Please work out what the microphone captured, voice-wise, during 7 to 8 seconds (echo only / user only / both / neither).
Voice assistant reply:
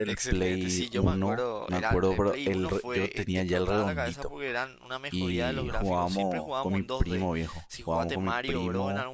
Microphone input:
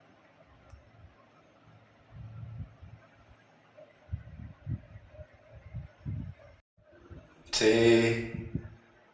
user only